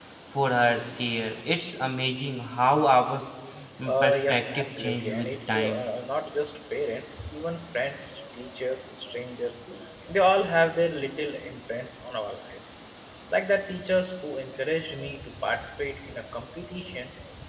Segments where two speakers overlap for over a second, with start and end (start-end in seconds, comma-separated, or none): 3.9-5.9